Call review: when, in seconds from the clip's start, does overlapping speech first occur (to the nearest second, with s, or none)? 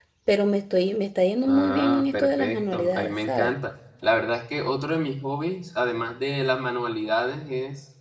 1 s